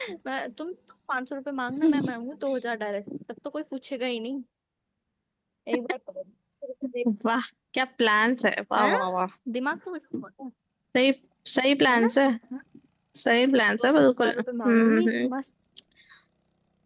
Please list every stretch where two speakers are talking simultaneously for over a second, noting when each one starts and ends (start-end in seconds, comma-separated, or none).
13.8-15.3